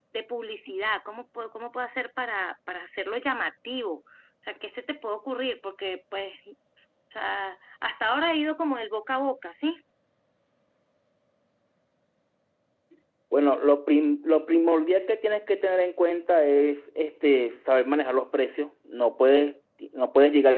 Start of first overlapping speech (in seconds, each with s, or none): none